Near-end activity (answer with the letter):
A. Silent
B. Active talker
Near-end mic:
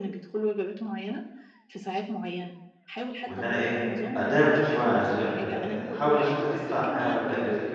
B